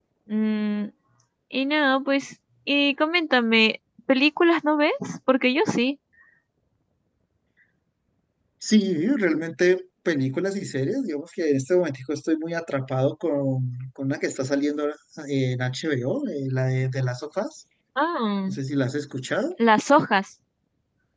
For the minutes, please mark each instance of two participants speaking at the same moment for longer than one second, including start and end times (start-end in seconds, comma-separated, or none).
none